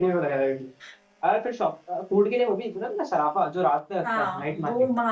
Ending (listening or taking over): taking over